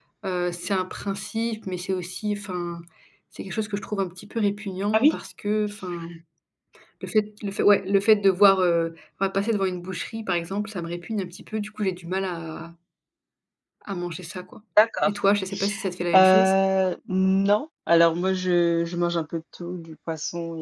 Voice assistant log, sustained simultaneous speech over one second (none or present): none